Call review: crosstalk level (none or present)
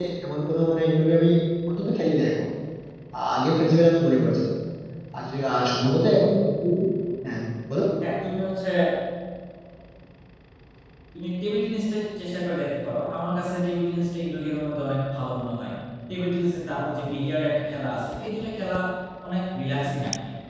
none